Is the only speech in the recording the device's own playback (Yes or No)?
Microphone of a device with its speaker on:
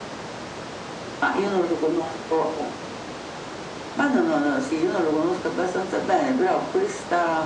Yes